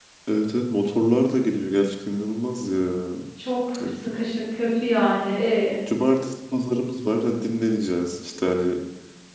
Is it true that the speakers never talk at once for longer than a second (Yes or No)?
Yes